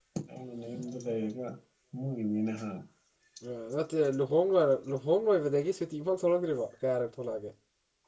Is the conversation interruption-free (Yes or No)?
Yes